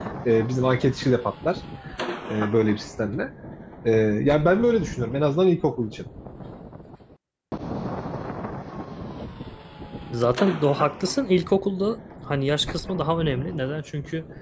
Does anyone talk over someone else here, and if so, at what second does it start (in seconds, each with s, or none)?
none